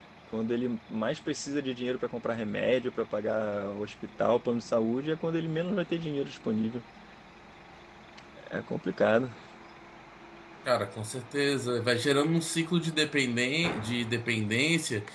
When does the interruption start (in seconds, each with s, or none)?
none